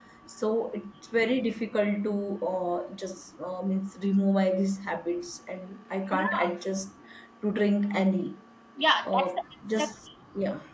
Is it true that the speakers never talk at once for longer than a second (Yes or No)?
Yes